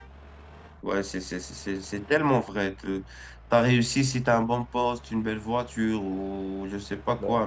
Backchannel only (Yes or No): Yes